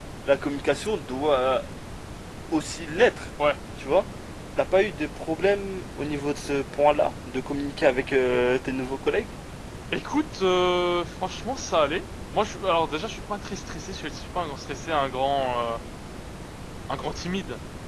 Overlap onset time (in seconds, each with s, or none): none